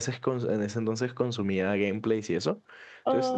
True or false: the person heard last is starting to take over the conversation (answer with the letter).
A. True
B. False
B